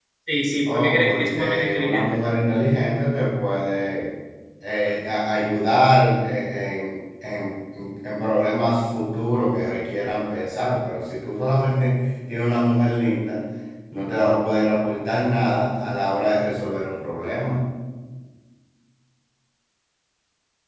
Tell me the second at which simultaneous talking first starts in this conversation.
0.7 s

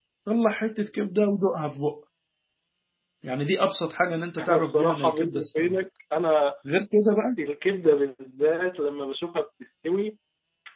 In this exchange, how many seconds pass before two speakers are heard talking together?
4.4 s

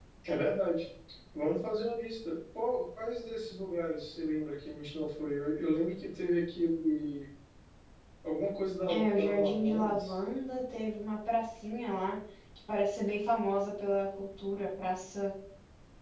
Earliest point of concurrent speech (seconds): 8.9 s

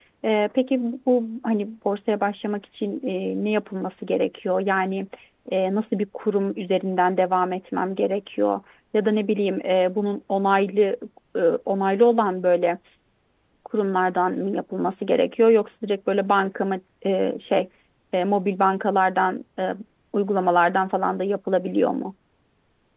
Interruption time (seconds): none

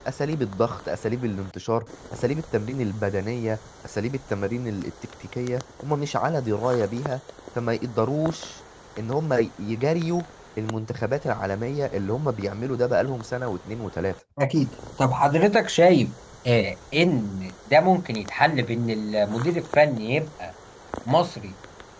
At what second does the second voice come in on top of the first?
none

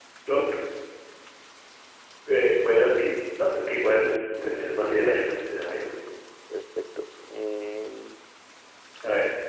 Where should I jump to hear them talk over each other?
4.0 s

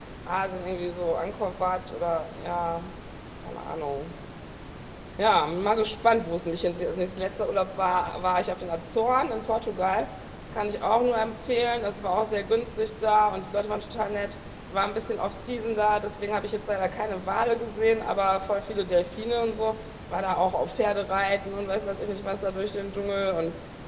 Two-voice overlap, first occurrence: none

